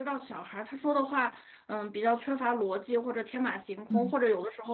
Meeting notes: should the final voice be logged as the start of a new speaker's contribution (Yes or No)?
No